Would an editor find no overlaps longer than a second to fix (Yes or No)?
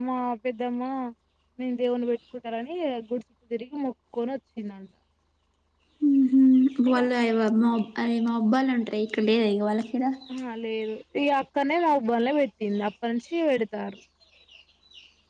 Yes